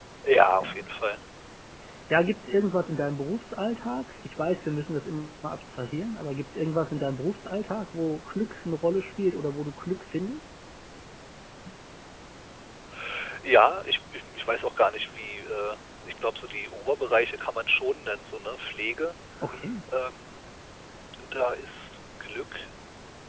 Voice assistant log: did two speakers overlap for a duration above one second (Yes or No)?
No